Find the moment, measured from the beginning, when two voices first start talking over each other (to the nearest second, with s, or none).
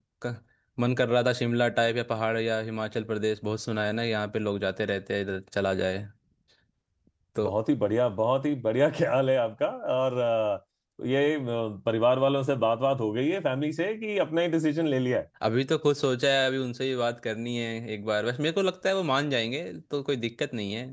none